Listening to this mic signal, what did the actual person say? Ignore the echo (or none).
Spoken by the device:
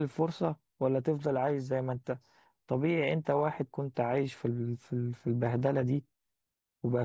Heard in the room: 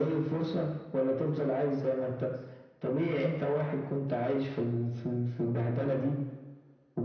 none